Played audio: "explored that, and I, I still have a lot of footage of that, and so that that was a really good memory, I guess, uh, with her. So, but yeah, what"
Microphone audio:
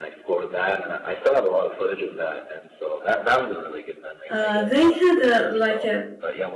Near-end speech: present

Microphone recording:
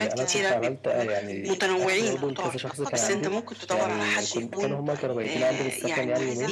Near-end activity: present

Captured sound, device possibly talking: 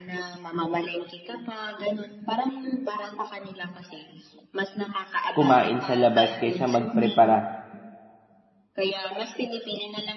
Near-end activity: present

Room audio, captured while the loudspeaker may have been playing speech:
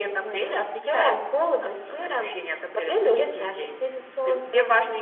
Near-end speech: none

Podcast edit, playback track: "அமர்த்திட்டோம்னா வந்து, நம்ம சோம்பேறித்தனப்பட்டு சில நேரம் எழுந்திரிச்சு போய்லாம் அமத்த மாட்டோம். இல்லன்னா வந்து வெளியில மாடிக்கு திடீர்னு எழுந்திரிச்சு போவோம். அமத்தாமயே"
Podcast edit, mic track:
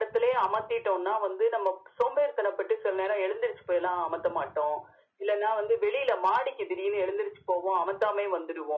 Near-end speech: none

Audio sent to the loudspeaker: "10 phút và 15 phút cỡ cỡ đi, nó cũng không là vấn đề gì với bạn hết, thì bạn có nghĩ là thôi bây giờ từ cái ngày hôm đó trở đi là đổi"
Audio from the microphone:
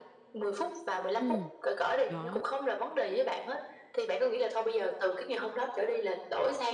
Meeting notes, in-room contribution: present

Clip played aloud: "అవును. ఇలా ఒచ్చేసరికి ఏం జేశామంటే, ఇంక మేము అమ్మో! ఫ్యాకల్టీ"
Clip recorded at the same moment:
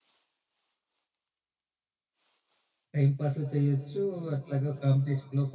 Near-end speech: present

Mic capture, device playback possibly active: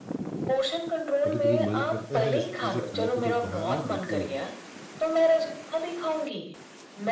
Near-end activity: present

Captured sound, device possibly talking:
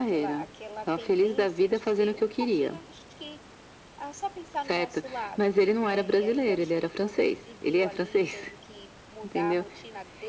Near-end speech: present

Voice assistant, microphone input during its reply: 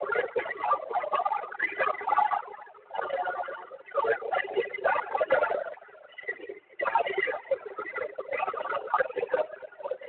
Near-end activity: none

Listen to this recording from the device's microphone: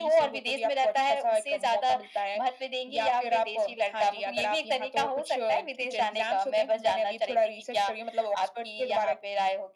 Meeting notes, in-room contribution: none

